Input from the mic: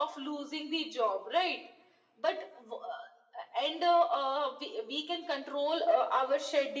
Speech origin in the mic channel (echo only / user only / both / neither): echo only